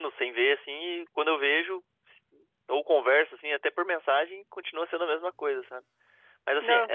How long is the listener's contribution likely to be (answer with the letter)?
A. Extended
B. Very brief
B